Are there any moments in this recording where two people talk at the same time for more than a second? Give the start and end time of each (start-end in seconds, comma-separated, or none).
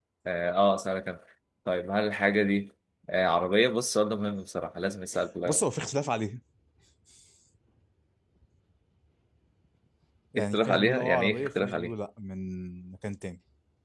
10.4-11.9